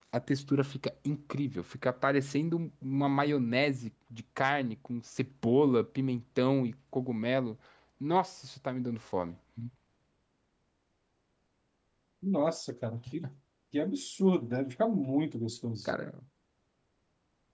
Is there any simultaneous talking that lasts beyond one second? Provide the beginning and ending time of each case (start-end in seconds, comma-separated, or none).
none